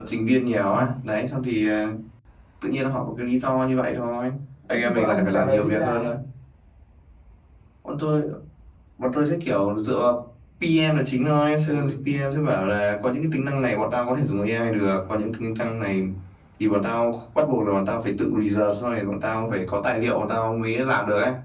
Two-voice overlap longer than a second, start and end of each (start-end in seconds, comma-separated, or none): 4.7-6.1